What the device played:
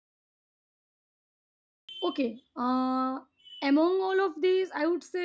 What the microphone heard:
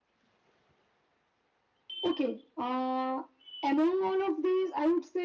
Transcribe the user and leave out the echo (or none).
none